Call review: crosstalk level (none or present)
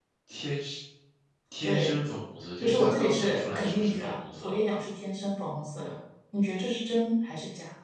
present